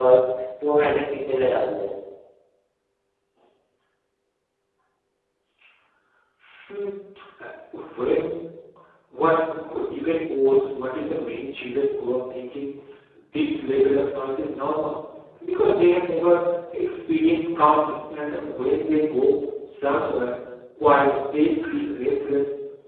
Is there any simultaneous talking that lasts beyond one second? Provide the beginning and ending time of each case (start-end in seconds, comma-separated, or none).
none